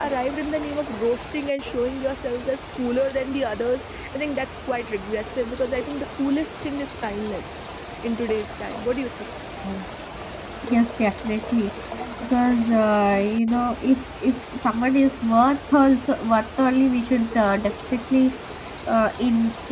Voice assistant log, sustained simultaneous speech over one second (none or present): none